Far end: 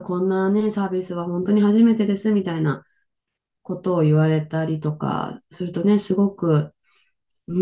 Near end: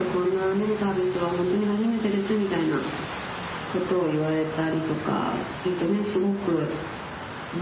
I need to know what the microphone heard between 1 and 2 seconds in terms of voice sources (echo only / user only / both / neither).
echo only